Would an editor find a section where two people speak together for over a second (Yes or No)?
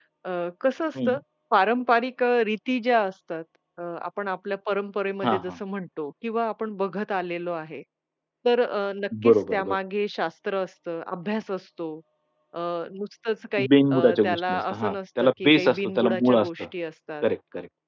Yes